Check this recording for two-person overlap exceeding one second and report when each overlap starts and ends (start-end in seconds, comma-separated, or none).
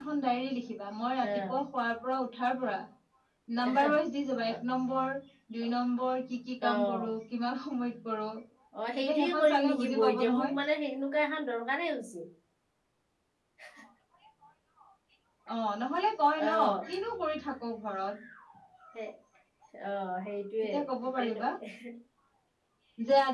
9.0-10.5